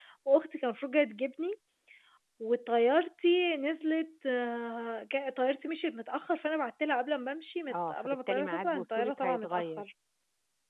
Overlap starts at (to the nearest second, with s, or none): 8 s